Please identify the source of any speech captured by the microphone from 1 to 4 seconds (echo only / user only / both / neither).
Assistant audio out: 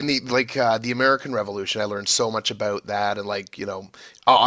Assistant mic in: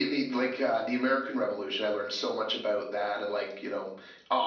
echo only